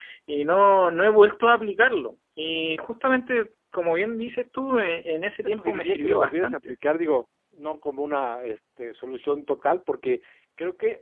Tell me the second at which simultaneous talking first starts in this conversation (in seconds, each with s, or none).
5.4 s